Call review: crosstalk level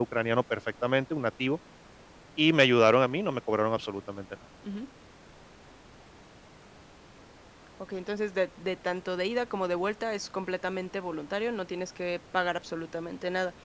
none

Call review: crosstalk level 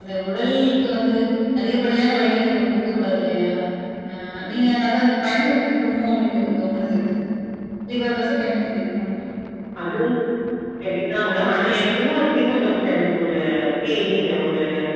none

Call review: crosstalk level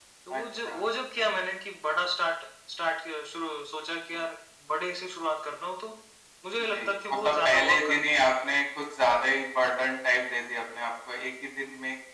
present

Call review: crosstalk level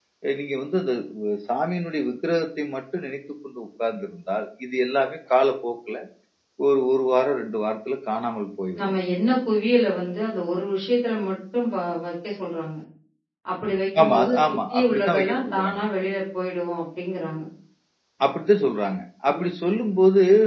present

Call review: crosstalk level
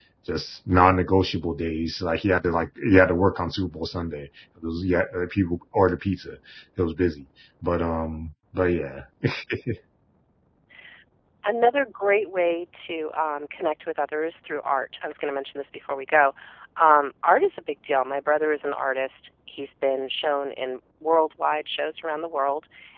none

